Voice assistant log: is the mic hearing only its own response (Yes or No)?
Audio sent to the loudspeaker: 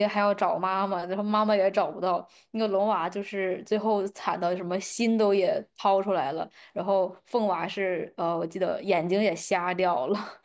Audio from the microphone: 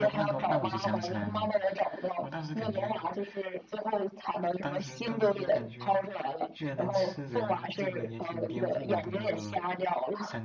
No